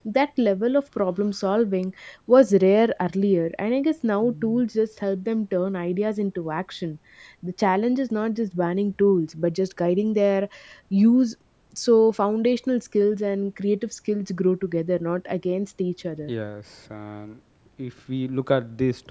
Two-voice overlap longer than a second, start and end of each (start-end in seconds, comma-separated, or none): none